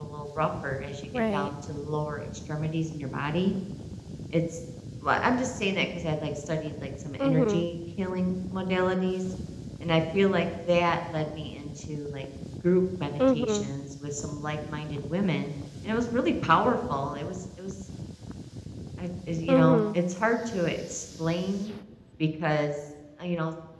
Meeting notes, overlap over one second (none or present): none